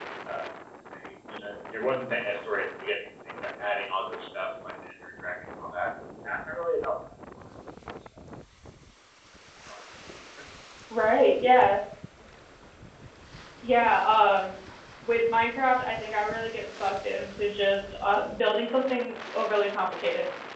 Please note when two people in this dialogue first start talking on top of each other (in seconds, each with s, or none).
none